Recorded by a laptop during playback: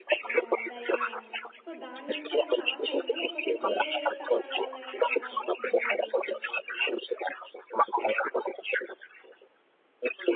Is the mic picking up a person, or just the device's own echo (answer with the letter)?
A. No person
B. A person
B